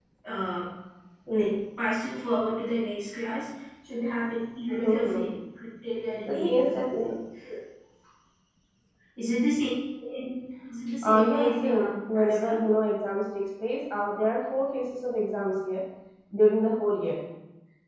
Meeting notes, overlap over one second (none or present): present